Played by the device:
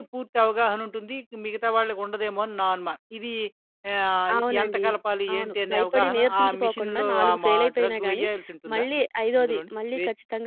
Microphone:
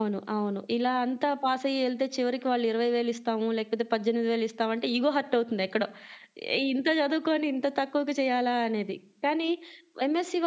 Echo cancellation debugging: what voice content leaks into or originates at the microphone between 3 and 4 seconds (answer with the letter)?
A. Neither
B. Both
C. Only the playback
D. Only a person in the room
D